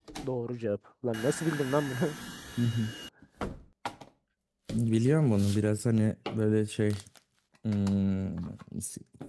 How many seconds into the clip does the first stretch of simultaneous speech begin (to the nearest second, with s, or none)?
none